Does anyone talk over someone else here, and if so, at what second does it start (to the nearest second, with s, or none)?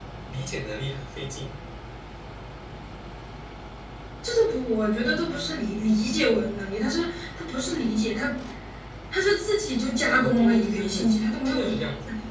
10 s